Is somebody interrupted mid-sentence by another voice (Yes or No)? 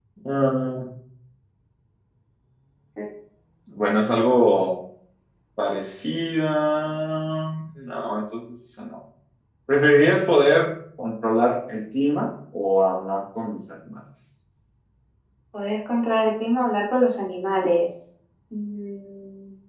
No